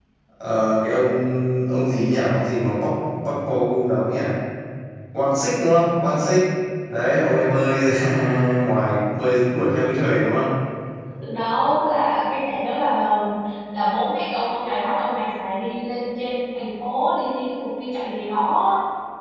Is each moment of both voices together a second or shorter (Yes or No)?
Yes